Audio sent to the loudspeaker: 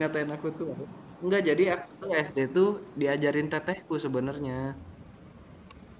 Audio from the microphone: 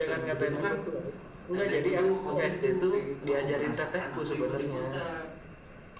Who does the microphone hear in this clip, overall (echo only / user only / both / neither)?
both